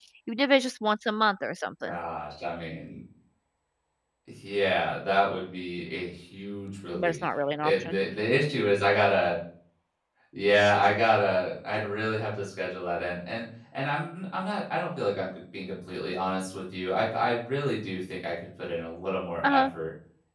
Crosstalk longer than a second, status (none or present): none